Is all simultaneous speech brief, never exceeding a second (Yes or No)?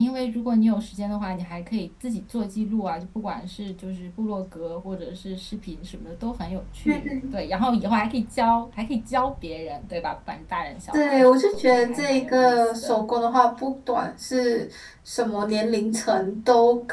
No